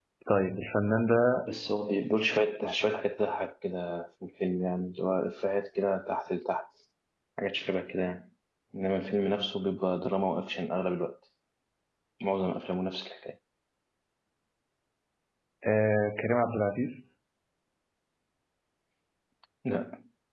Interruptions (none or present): none